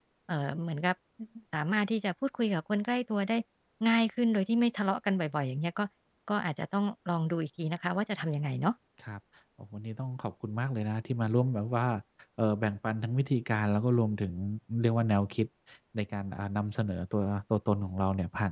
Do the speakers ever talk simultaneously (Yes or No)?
No